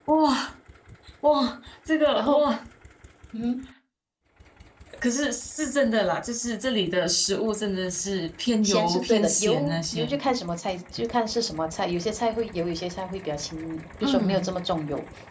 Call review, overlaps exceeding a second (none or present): present